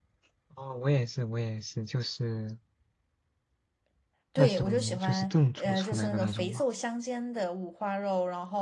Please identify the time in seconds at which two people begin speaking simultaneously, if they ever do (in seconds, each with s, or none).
4.4 s